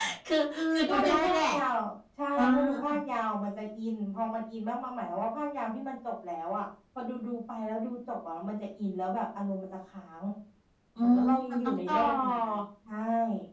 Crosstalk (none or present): present